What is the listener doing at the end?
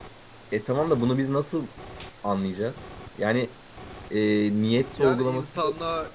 taking over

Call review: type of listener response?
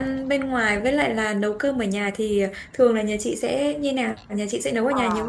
taking over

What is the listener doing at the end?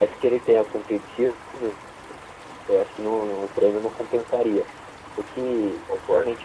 listening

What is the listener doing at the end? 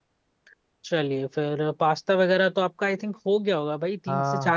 taking over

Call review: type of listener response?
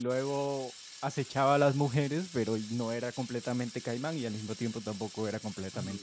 taking over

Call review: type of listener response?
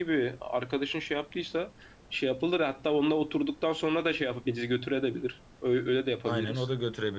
taking over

